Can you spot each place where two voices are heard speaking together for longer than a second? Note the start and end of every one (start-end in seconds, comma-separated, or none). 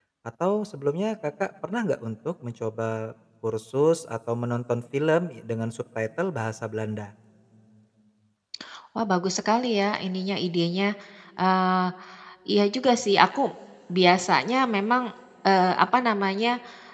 none